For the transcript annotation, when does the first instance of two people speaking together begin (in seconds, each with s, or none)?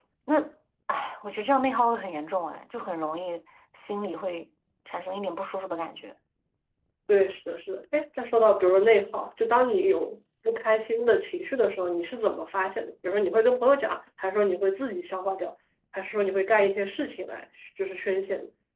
none